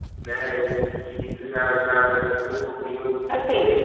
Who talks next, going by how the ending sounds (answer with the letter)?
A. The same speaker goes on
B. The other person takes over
B